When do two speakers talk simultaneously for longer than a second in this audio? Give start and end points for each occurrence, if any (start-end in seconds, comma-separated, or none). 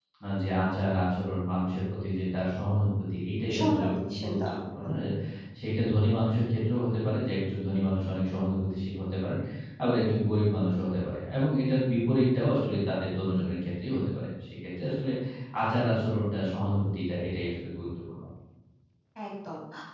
3.5-4.9